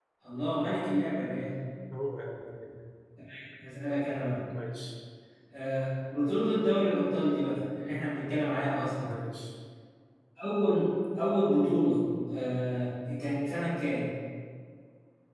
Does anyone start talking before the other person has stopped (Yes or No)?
No